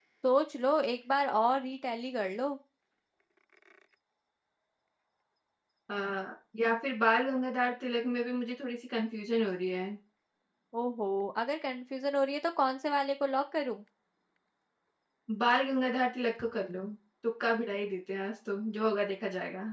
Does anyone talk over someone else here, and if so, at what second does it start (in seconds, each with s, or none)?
none